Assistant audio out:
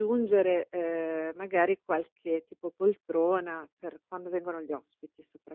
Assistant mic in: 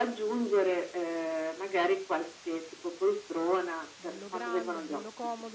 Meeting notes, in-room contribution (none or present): present